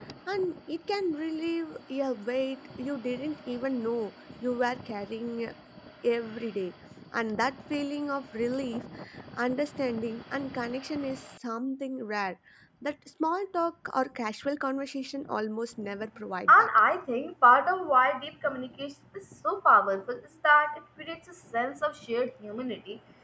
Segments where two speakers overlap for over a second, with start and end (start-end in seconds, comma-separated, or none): none